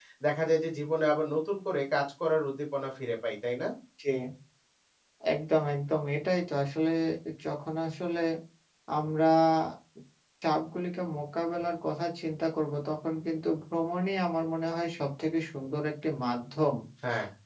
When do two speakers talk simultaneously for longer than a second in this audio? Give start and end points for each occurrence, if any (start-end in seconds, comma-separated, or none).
none